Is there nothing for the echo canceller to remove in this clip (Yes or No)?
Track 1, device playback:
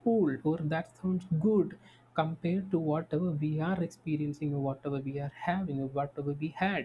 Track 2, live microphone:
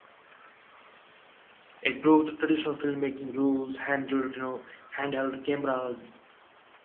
Yes